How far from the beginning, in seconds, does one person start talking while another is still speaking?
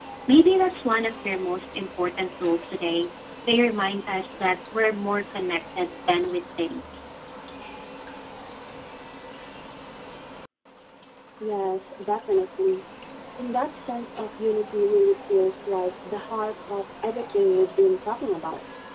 none

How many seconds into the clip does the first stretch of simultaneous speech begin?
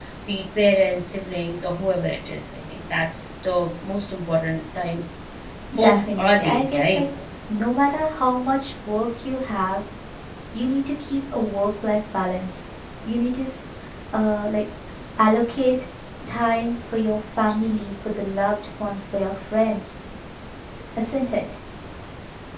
5.8 s

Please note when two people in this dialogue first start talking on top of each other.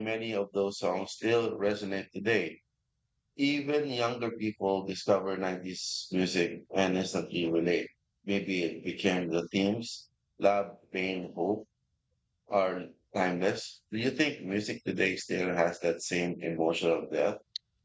none

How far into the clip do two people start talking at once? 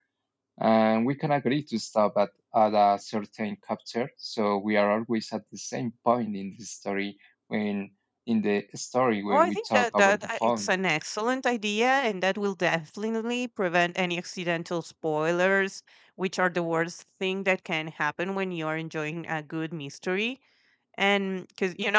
9.3 s

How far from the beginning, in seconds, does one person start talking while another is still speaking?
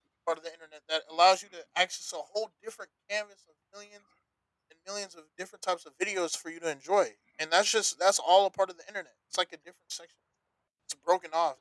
none

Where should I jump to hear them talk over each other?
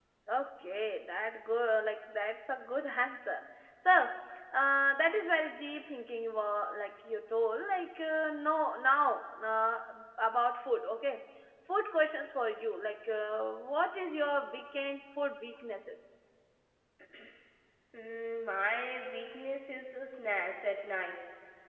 none

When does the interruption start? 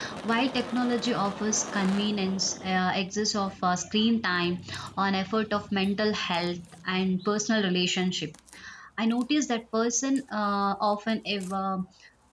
none

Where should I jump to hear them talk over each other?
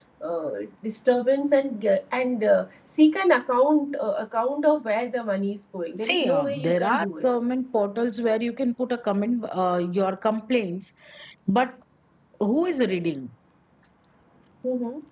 6.0 s

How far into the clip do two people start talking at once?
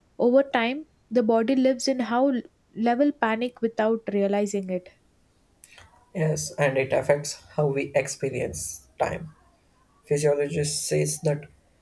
none

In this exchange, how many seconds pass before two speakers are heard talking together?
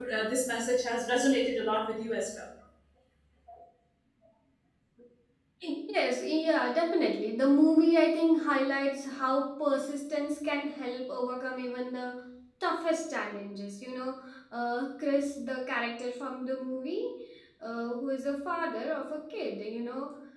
none

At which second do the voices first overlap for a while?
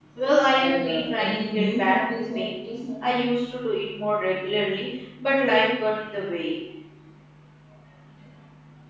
0.6 s

